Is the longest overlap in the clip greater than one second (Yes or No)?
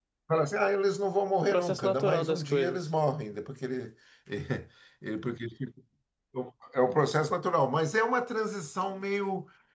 Yes